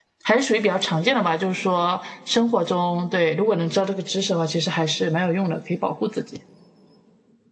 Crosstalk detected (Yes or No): No